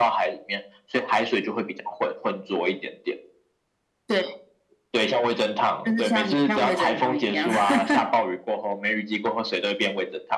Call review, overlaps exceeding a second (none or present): present